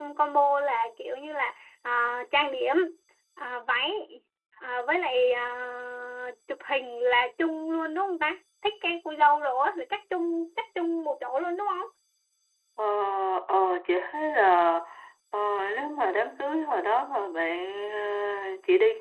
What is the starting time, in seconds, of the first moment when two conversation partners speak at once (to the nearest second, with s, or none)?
none